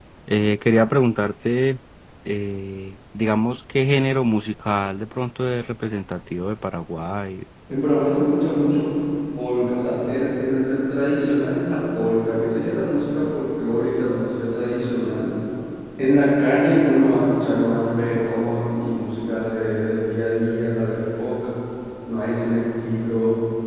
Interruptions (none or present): none